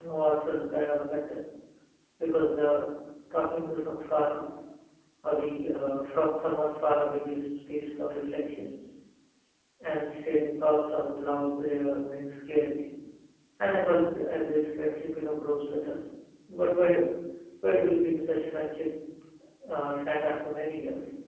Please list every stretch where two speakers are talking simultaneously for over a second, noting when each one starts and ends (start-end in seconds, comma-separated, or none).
none